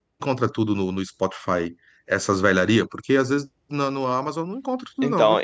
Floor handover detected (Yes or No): Yes